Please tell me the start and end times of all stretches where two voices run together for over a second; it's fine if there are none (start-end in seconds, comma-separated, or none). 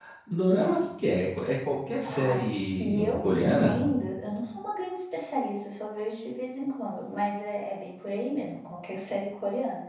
2.1-3.7